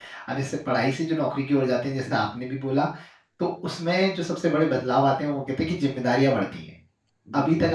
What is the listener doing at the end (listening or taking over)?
listening